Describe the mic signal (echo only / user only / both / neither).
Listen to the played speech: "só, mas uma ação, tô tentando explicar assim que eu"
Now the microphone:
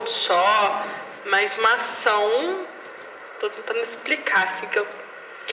echo only